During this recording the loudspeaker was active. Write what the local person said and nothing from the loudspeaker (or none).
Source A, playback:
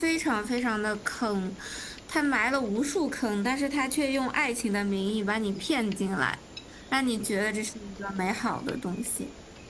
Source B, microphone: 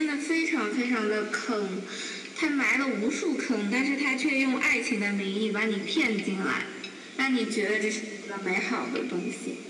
none